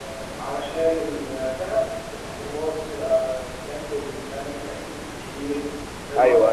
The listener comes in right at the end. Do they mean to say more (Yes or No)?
No